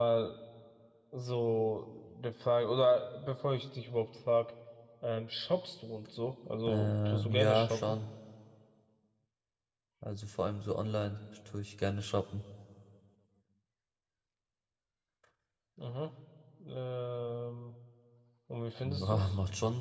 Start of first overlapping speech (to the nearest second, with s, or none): 7 s